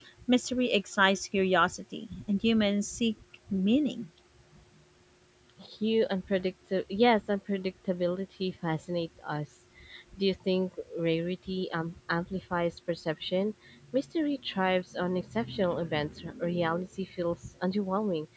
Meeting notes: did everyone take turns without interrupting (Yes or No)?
Yes